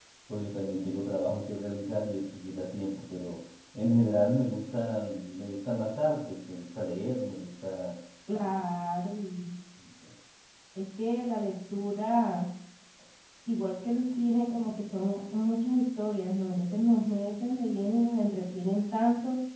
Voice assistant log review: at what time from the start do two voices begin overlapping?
none

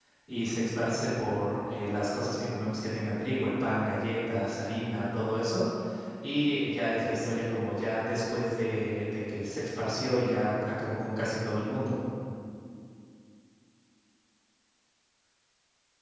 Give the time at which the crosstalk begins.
none

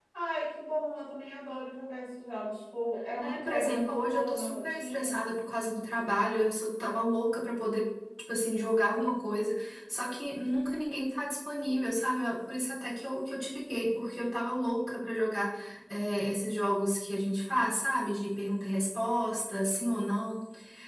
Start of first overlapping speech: 3.2 s

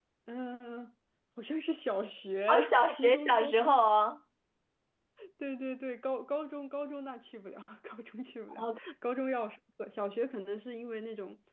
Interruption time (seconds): 2.5 s

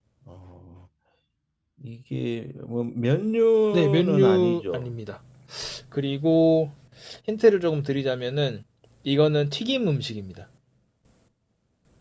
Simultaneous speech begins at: 3.7 s

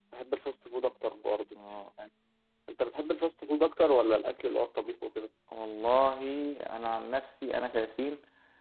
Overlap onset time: none

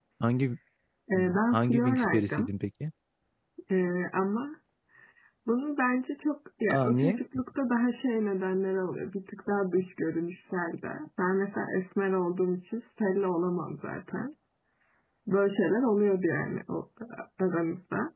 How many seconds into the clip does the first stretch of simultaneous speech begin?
1.1 s

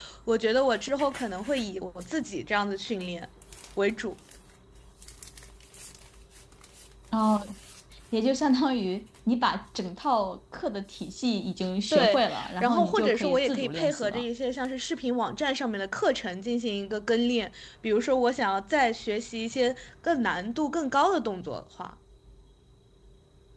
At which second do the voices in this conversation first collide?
11.9 s

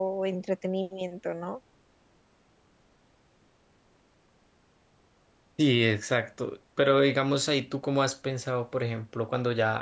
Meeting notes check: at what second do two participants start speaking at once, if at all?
none

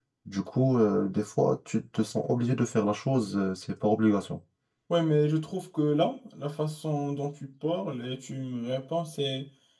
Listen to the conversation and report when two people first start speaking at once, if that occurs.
none

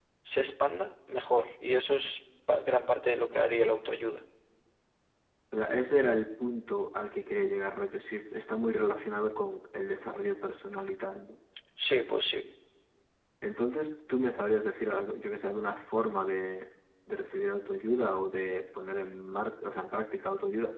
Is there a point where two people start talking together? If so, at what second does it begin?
none

